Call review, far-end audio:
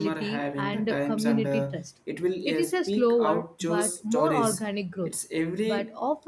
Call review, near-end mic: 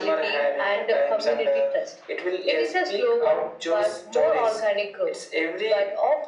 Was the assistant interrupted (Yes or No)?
No